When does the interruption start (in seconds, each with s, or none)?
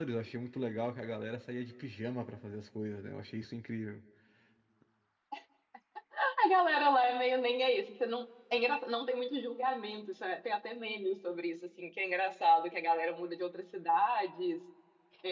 none